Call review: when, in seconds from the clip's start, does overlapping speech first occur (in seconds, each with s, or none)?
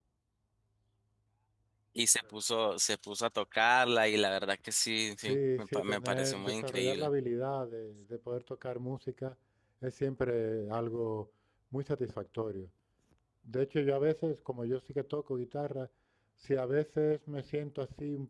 5.2 s